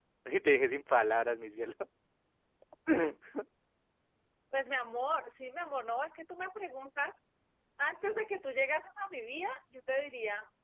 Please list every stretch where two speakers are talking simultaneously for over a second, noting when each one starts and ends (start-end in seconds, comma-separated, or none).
none